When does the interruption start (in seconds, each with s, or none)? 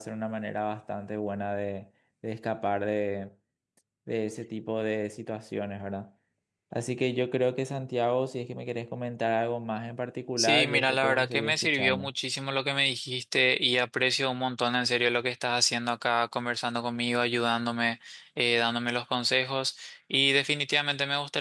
10.4 s